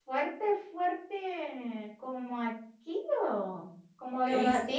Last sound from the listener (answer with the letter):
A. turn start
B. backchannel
A